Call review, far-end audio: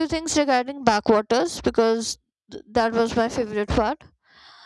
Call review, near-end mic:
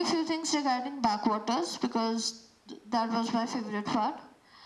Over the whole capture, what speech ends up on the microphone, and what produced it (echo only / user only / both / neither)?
echo only